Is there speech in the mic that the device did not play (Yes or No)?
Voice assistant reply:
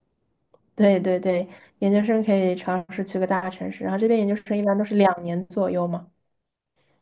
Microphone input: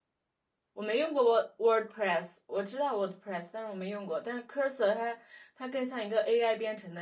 Yes